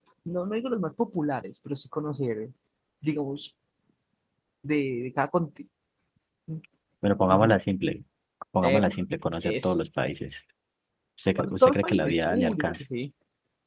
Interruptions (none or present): present